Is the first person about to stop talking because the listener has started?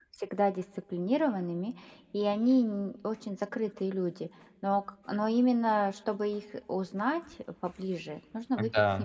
No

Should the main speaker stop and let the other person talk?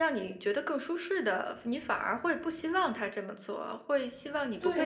Yes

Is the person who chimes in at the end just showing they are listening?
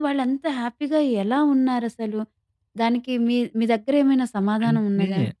No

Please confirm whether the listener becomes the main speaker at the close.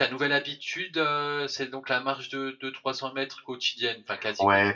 Yes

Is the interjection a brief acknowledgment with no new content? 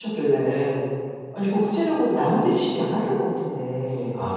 No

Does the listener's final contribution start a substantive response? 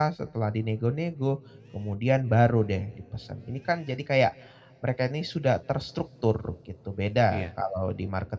No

